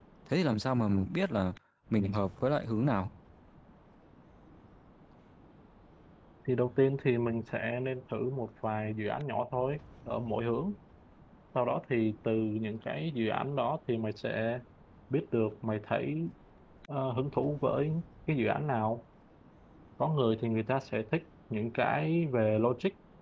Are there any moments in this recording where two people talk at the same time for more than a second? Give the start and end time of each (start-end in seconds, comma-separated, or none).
none